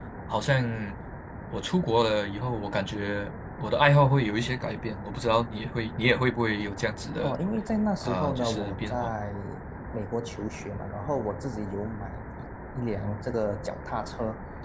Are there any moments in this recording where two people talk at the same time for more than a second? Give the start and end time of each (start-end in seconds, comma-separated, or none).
8.0-9.2